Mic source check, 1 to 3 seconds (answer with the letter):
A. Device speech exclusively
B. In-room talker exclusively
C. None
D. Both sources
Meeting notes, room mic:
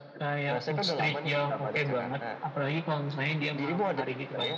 A